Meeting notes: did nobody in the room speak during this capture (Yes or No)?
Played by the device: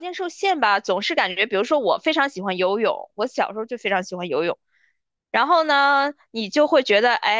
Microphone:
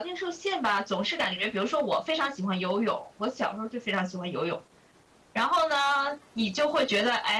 Yes